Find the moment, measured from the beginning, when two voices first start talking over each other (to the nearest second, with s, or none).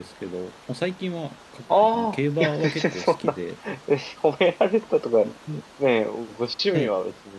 2 s